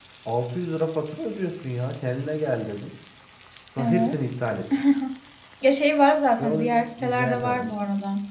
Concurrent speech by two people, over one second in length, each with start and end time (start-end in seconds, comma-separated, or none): 6.4-7.7